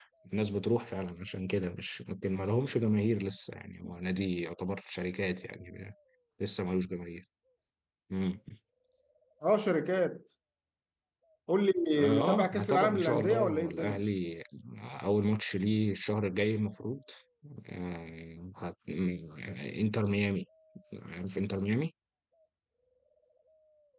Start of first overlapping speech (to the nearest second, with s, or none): 12 s